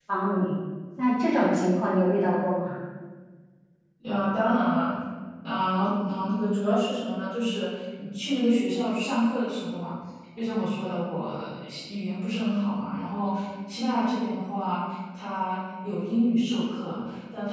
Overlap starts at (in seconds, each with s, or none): none